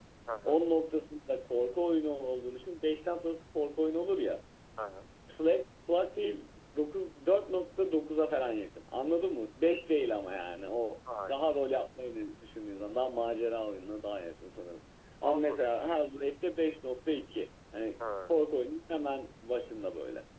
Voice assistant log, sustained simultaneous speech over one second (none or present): none